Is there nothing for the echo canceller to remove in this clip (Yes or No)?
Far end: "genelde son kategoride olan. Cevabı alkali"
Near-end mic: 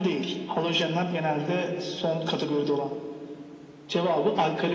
No